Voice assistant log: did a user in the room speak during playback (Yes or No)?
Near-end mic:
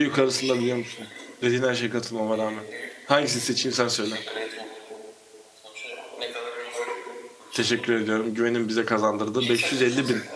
Yes